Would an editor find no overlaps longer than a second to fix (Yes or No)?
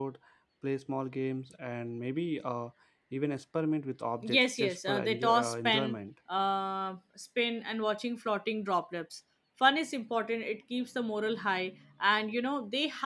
No